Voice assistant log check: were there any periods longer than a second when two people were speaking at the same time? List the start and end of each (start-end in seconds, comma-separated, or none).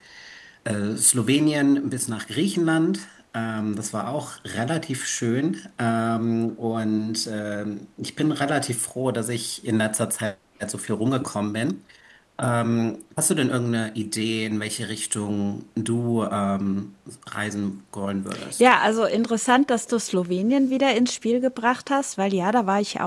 none